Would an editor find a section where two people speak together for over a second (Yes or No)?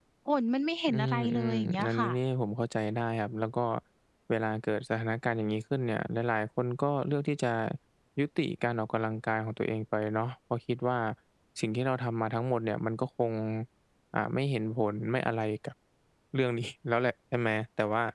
Yes